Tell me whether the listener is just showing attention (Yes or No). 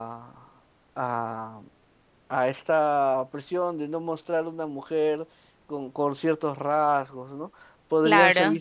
Yes